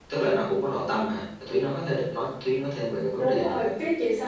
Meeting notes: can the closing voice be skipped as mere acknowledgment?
No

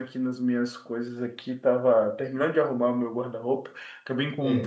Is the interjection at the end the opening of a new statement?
No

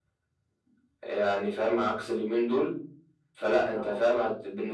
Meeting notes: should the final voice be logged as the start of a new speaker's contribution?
No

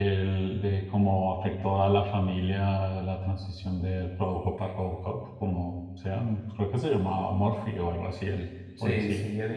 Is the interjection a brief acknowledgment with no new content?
No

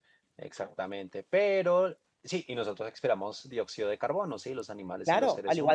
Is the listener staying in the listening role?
No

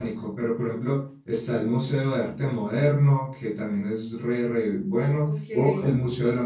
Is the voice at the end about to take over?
No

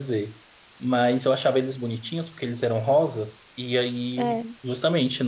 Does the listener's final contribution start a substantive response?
No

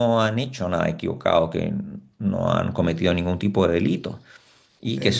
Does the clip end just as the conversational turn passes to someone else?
No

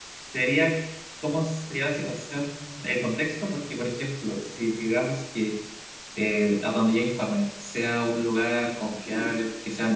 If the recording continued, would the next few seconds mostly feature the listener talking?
No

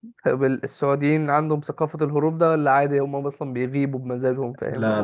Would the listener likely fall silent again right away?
No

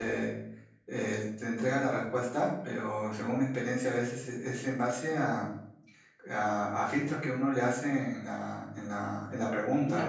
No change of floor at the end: Yes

